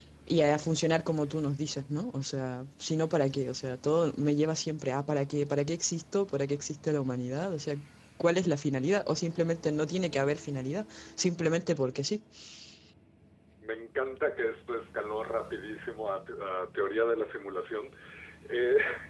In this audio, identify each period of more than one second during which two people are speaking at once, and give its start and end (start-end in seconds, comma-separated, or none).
none